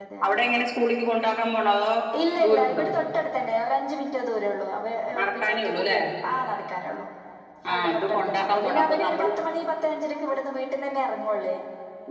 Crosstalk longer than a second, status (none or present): present